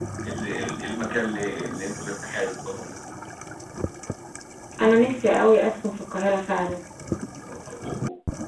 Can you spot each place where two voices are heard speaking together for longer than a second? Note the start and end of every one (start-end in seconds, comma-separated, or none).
none